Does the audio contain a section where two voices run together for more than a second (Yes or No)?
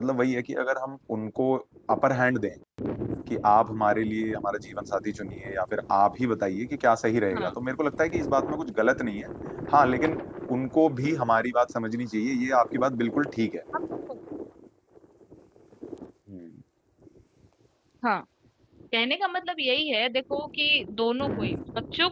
No